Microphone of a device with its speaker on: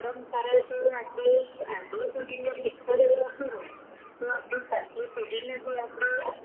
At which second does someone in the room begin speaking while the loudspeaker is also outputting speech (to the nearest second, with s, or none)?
none